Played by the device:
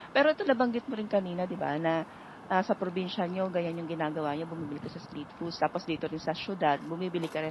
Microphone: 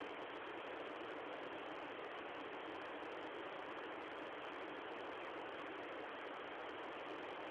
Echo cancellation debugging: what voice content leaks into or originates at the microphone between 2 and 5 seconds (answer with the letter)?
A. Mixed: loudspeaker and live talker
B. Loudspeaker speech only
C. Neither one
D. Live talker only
C